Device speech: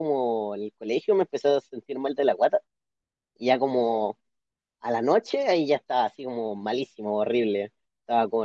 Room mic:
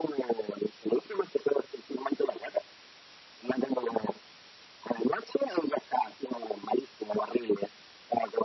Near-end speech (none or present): none